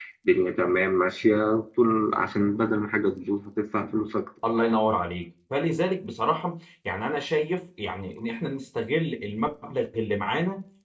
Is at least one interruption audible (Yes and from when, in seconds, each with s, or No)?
No